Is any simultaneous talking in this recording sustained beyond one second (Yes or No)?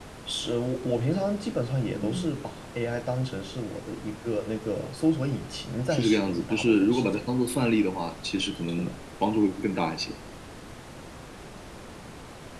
Yes